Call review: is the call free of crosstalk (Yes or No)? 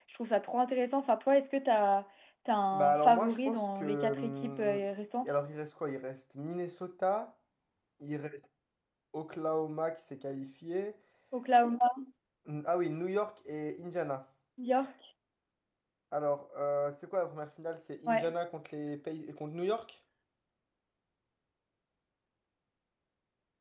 No